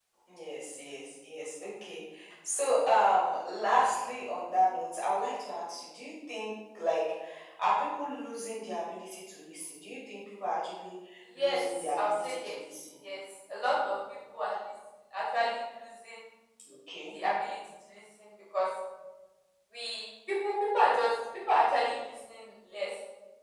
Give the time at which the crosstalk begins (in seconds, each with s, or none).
11.3 s